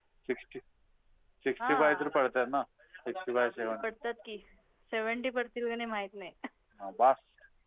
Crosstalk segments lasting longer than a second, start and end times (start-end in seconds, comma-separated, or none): none